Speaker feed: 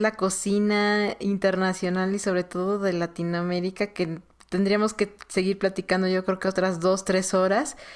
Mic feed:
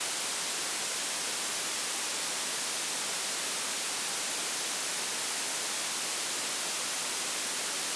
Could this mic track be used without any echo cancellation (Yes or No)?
Yes